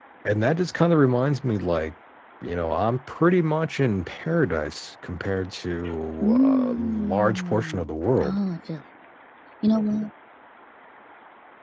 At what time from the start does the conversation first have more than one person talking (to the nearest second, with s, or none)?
6 s